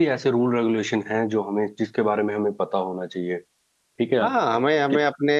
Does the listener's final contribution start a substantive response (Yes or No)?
Yes